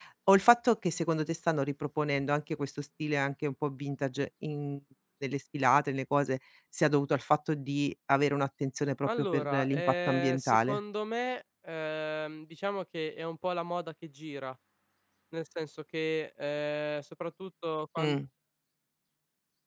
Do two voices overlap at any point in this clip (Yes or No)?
Yes